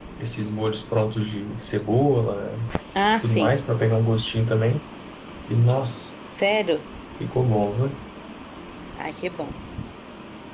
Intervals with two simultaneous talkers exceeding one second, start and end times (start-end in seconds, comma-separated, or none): none